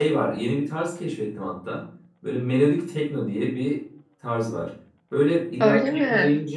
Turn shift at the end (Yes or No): No